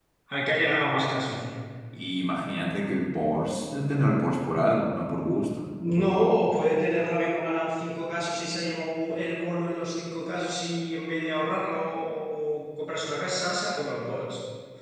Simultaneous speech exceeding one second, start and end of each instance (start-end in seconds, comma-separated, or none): none